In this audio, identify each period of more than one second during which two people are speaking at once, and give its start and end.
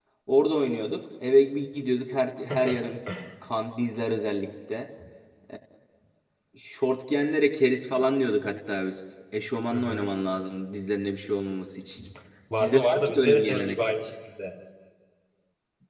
12.6-13.8

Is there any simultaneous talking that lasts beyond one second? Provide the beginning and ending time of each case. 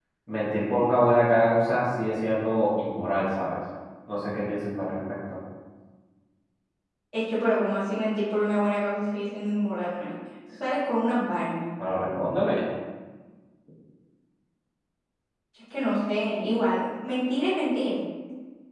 none

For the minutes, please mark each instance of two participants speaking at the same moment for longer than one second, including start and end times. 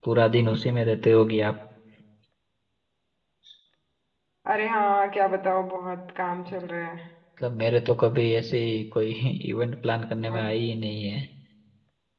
none

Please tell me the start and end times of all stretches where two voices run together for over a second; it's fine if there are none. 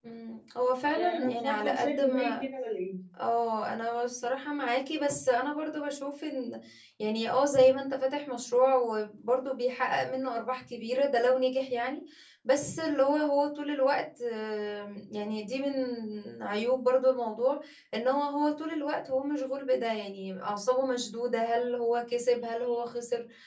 0.9-2.4

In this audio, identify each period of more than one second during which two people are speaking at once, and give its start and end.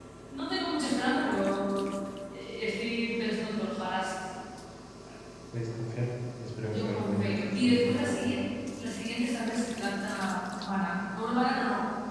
6.7-8.4

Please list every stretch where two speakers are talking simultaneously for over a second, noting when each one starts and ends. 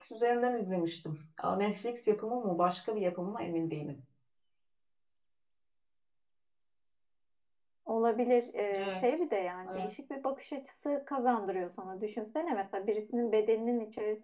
none

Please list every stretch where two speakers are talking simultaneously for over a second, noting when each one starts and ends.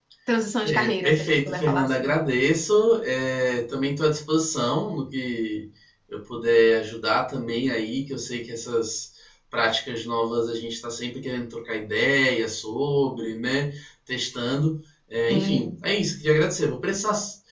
0.6-2.1

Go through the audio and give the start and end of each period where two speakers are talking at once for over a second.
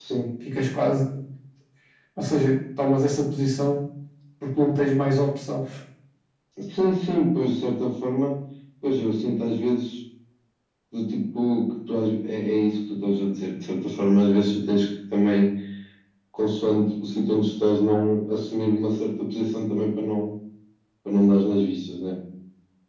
none

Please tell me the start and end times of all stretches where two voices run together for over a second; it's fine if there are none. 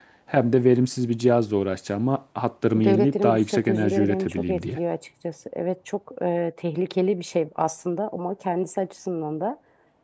2.7-4.8

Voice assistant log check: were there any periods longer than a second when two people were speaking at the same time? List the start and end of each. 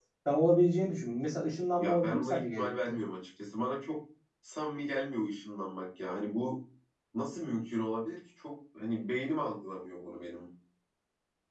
1.8-3.0

